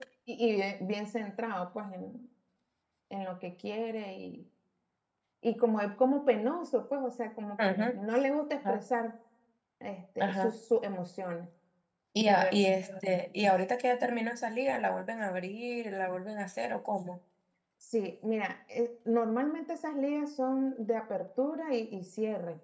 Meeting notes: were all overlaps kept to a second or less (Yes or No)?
Yes